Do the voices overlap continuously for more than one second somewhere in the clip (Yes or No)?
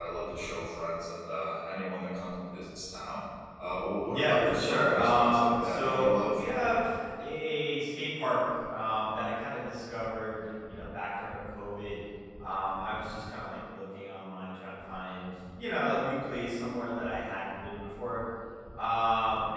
Yes